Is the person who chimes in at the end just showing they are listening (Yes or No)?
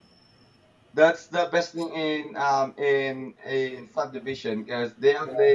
Yes